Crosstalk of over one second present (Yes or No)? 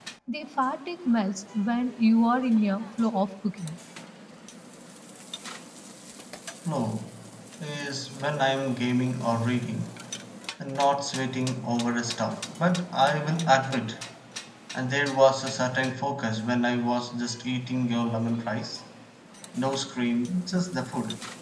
No